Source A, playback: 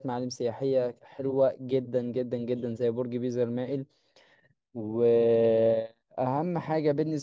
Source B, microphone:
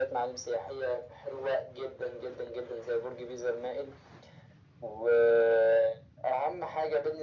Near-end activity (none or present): none